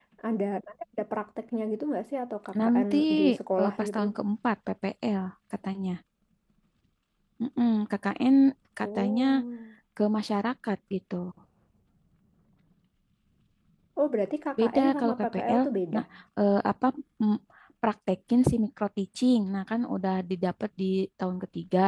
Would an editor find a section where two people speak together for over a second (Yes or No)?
Yes